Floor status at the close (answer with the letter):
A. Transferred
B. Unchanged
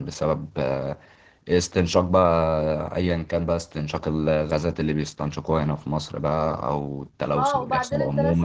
A